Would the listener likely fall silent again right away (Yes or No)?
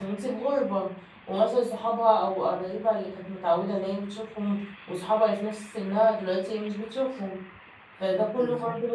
Yes